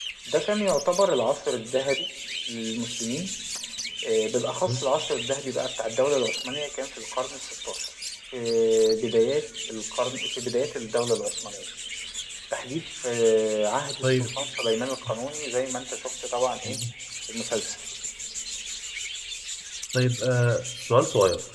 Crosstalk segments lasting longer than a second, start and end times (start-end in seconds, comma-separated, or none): none